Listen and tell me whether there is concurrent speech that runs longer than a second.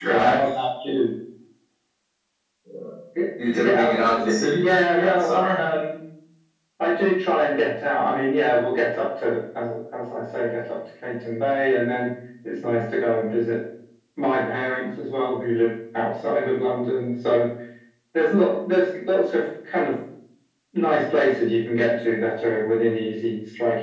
Yes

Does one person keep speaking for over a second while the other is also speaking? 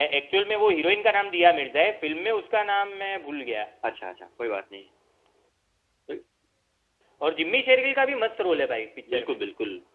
No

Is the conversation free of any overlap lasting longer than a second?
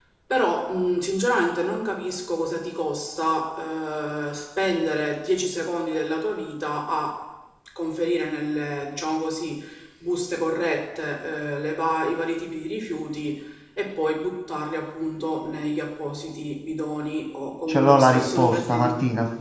No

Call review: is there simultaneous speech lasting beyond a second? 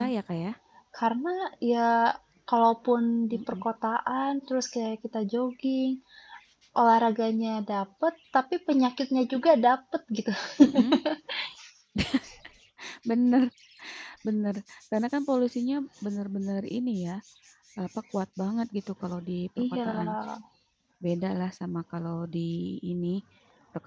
No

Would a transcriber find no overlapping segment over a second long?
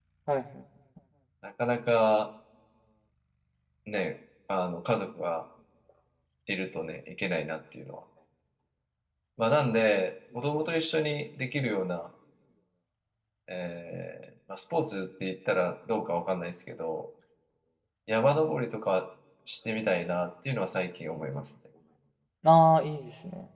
Yes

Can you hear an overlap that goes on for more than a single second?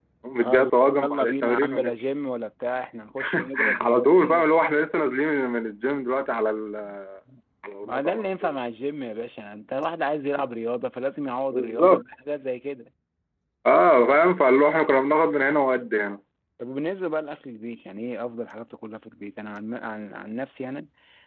Yes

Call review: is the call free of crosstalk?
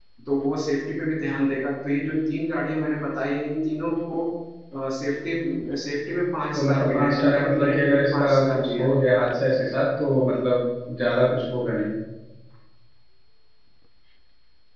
No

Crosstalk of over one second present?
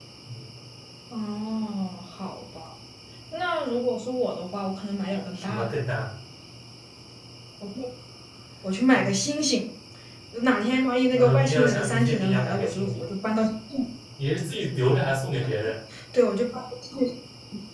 Yes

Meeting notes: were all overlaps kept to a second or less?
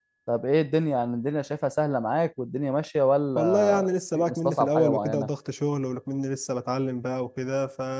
No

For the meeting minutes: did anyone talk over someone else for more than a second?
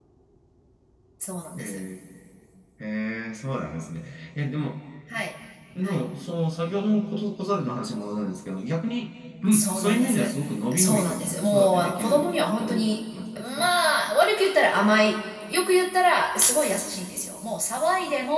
Yes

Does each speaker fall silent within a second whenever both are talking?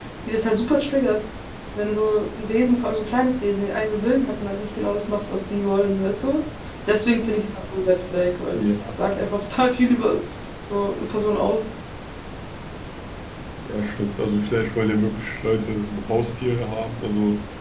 Yes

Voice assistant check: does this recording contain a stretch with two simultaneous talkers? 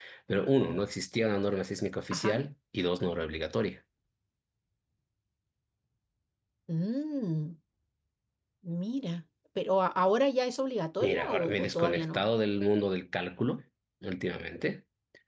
Yes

